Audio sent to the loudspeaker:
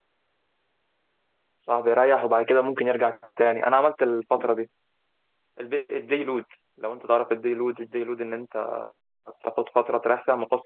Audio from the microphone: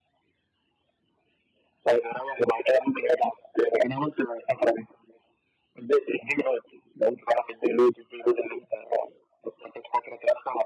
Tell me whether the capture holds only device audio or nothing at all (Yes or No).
Yes